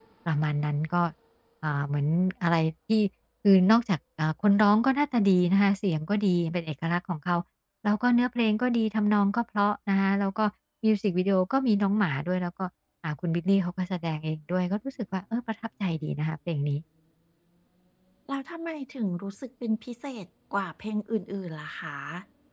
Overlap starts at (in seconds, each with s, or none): none